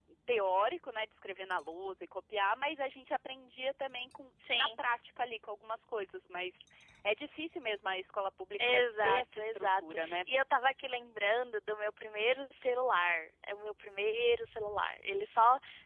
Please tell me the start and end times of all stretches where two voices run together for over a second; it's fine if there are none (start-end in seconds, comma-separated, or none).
8.7-10.2